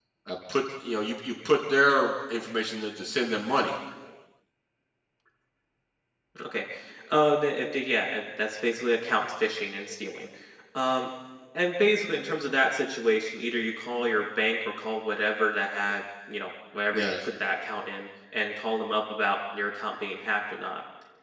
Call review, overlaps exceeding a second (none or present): none